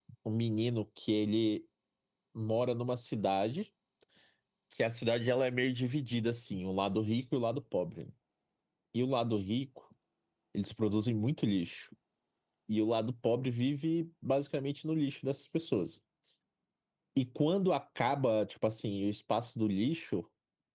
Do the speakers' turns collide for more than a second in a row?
No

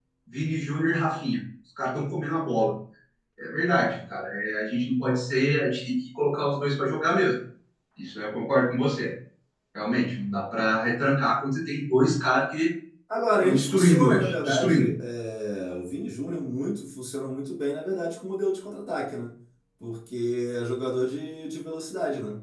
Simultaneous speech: Yes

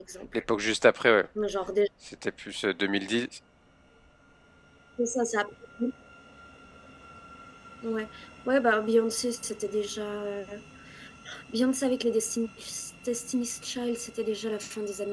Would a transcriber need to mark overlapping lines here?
No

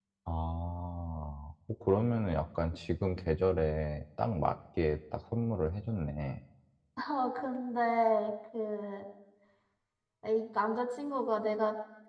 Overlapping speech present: No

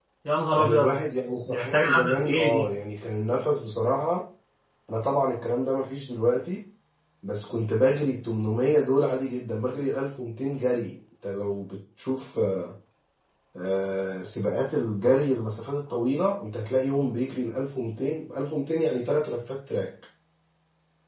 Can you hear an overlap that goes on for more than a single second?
Yes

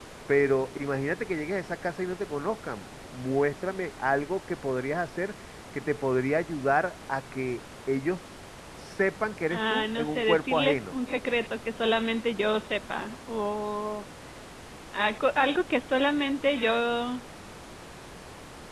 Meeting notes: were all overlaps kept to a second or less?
No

